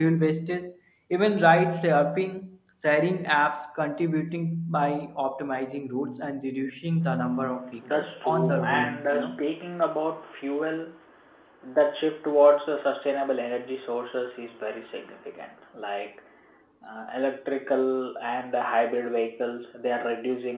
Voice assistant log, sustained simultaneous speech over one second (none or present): present